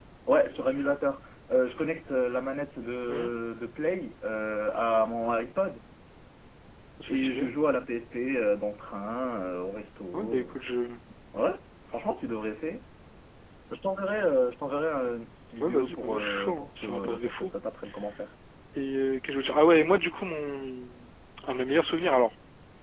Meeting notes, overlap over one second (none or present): present